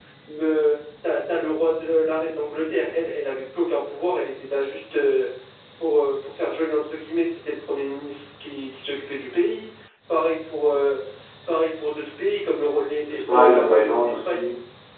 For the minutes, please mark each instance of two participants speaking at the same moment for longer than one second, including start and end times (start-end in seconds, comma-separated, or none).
13.1-14.4